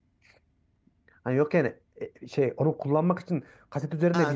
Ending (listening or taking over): taking over